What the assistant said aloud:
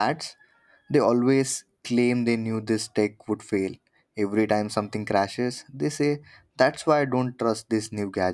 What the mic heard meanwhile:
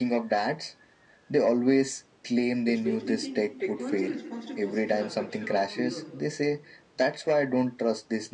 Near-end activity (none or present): present